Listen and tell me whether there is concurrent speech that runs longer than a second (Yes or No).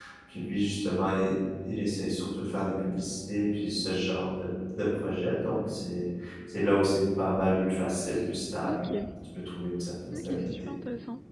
No